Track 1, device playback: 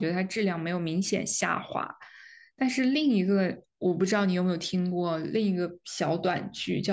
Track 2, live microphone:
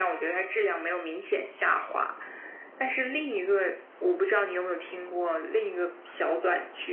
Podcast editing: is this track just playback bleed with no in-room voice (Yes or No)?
Yes